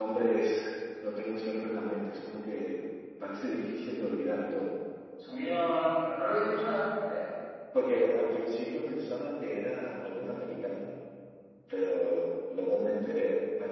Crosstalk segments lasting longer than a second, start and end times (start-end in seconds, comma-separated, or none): none